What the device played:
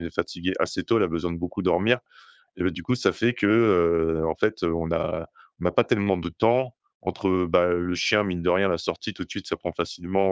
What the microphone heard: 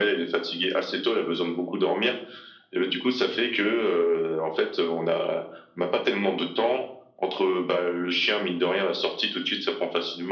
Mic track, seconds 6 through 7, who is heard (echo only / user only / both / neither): echo only